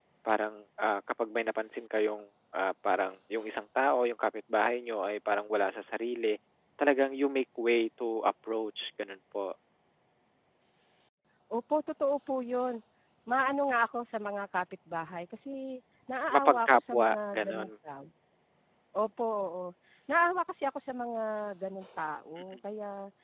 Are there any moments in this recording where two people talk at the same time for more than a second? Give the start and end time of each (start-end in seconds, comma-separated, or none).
16.3-17.7